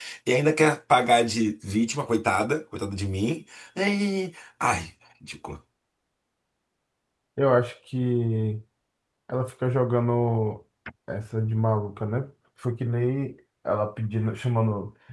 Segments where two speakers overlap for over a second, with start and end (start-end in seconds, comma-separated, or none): none